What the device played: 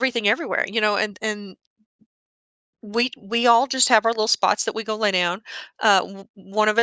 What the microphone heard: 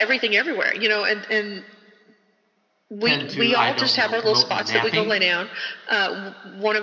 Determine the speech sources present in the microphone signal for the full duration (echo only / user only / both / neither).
both